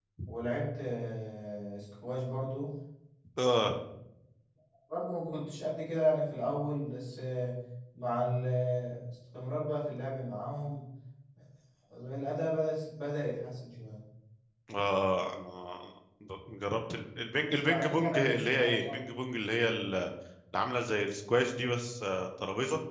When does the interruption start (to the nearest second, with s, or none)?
17 s